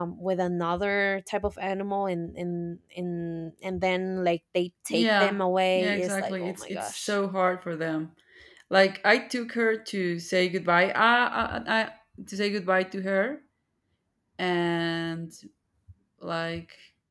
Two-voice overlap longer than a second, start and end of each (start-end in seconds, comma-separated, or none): 5.8-7.1